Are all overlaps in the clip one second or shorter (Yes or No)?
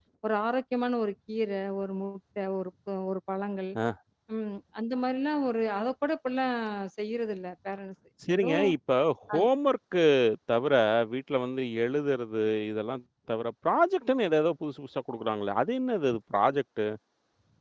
Yes